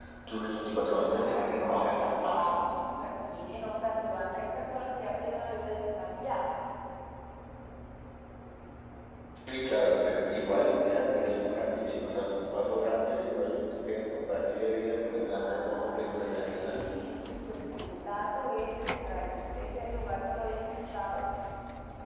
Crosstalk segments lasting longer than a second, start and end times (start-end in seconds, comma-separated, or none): 1.1-2.5, 15.3-16.8